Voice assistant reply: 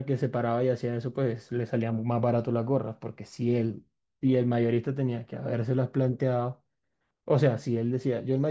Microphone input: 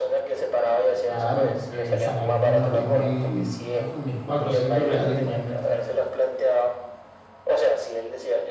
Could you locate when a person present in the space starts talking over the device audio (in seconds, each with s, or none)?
1.0 s